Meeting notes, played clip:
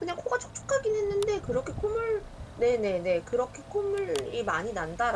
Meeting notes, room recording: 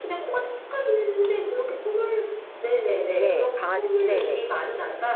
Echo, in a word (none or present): present